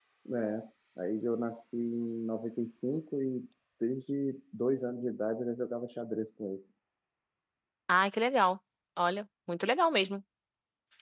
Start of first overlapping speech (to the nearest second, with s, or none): none